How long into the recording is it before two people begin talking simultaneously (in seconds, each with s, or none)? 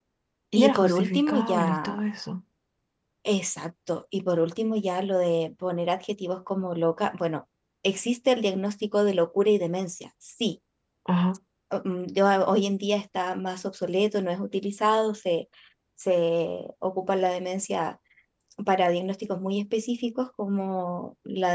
0.6 s